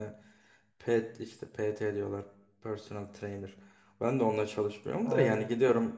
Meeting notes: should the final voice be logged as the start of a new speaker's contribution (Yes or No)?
No